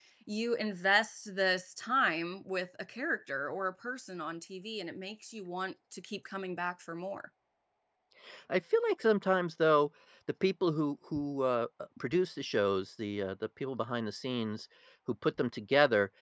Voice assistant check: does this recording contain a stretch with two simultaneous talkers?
No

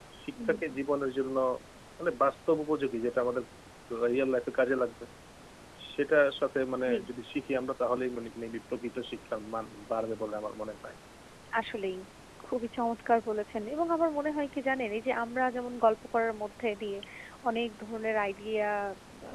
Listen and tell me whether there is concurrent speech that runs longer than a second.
No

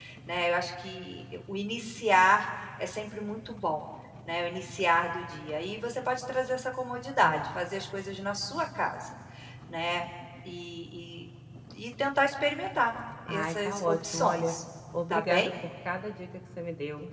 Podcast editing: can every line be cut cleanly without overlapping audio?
No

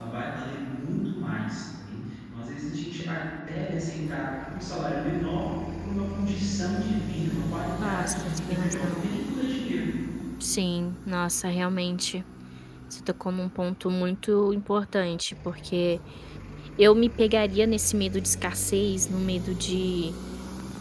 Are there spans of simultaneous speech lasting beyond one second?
Yes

